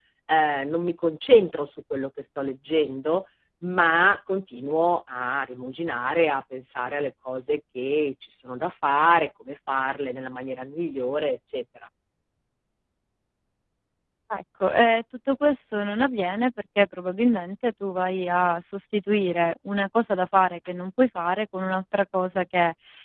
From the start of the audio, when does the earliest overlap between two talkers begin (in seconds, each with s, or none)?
none